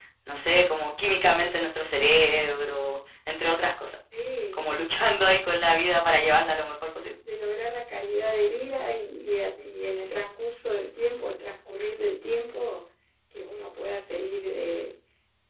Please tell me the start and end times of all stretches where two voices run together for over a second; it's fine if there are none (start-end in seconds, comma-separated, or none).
none